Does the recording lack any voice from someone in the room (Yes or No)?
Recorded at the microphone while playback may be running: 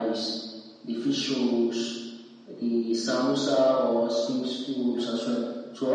Yes